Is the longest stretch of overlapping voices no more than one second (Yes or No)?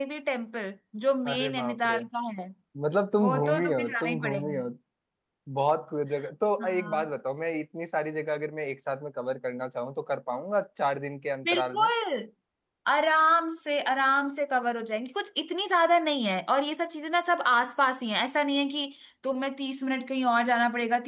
No